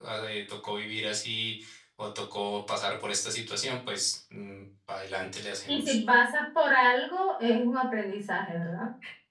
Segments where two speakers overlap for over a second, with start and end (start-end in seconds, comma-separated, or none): none